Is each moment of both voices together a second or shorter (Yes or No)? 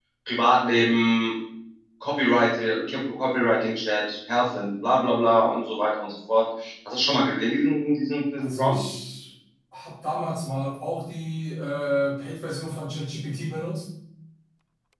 Yes